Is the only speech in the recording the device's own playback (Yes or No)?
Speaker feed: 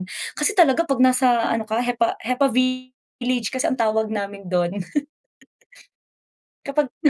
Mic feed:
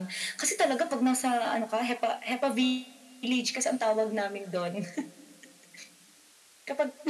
Yes